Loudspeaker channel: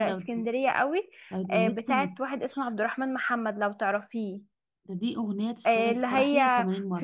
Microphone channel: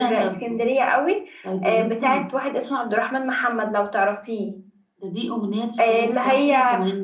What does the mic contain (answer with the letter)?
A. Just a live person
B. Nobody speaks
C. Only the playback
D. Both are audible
C